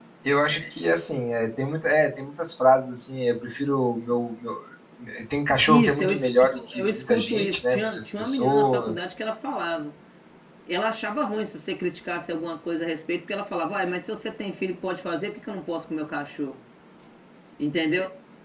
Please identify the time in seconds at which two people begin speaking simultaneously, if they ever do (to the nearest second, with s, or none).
6 s